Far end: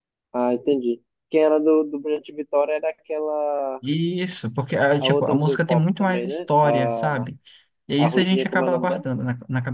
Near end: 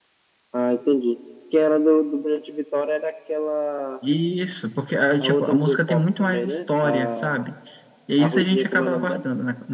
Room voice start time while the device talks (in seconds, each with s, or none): none